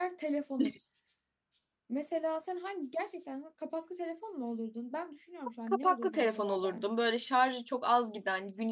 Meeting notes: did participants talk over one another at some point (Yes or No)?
Yes